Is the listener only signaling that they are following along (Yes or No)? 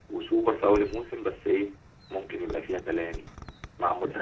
No